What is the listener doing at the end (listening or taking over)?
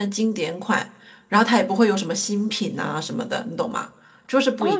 taking over